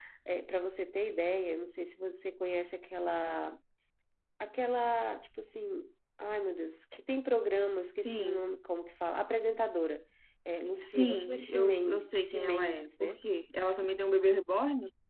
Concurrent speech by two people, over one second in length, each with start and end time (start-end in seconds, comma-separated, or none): 10.8-13.2